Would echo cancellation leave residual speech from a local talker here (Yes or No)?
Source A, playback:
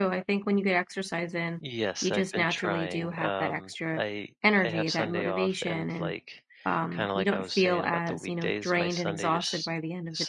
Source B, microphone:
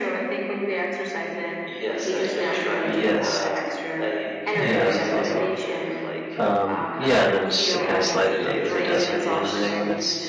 Yes